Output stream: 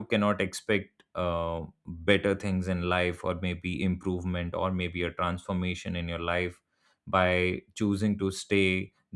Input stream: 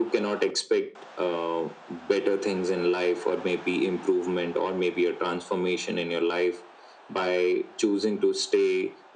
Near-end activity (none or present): none